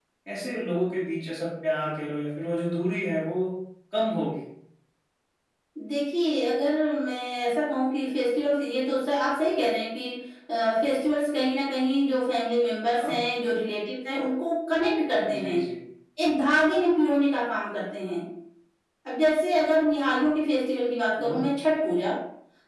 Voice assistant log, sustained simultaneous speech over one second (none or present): none